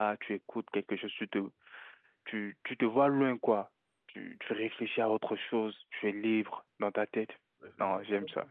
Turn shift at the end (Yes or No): Yes